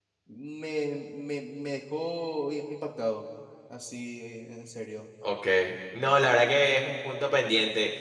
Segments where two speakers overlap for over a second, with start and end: none

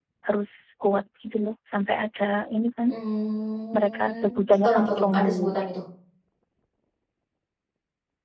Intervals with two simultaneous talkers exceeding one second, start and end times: 3.8-5.5

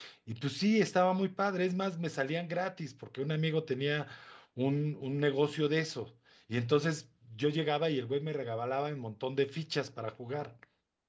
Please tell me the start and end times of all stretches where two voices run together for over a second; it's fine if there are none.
none

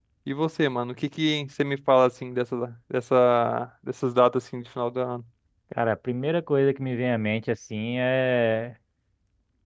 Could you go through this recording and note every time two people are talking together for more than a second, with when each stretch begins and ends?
none

